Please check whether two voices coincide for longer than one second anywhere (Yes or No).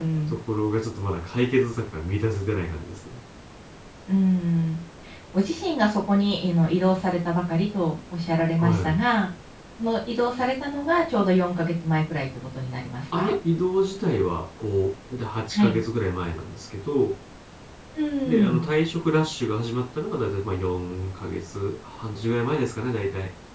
No